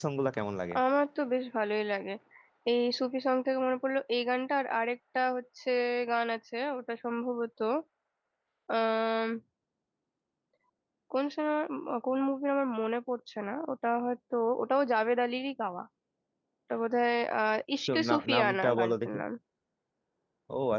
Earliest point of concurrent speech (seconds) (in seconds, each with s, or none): 17.9 s